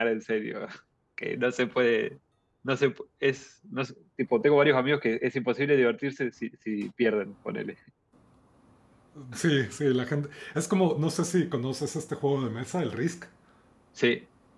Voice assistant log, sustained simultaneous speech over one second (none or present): none